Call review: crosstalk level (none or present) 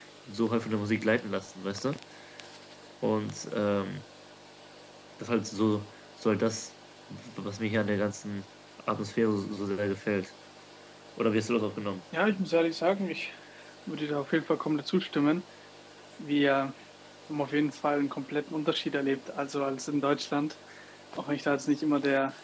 none